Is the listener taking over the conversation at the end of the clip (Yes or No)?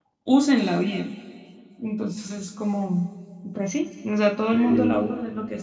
No